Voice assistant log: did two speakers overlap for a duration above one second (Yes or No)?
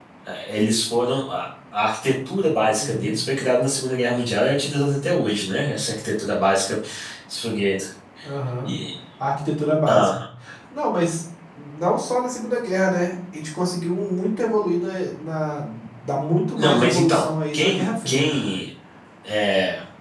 Yes